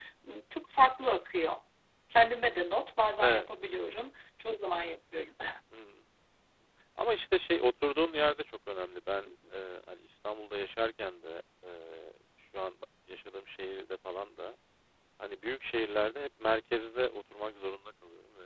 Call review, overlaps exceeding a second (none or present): none